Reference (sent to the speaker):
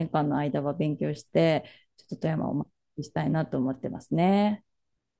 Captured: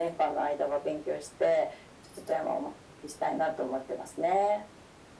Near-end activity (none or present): none